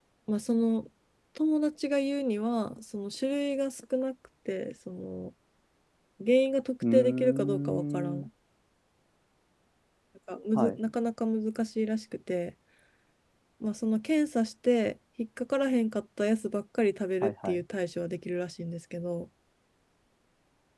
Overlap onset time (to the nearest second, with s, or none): 7 s